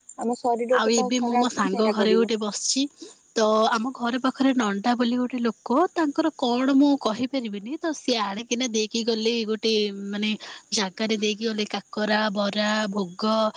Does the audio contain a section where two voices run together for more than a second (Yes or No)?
Yes